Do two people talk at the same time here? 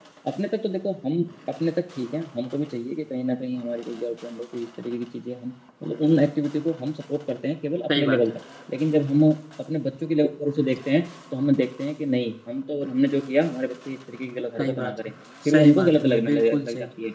Yes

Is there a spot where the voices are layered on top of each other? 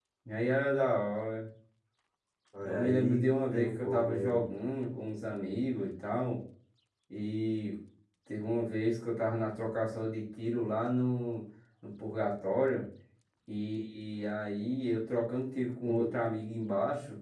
Yes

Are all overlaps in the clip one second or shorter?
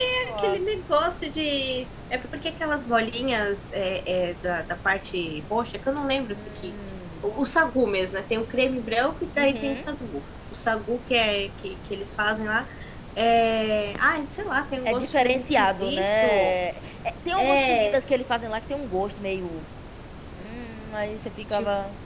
No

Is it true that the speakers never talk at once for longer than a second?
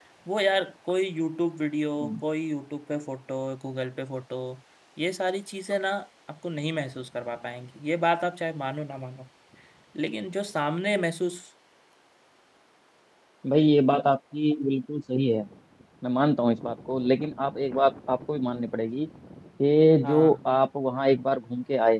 Yes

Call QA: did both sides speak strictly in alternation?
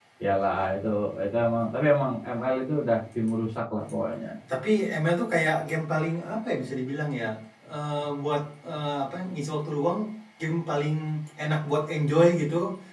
Yes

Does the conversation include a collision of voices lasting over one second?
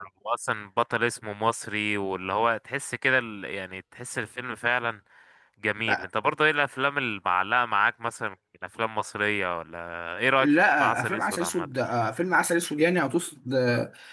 Yes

